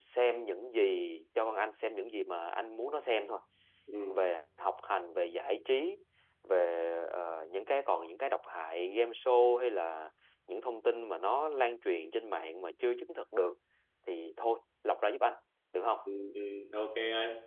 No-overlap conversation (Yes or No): Yes